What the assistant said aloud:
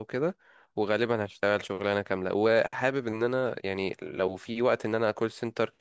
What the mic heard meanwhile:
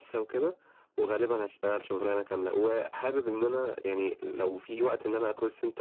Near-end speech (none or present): none